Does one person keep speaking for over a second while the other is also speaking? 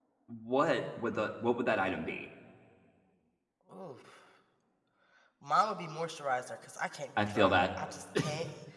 No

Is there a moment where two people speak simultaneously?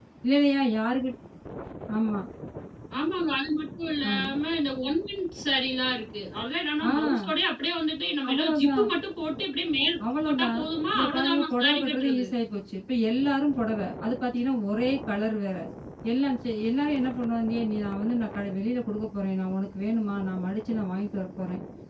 Yes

